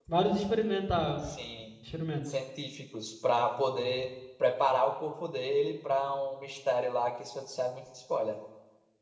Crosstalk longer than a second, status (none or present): none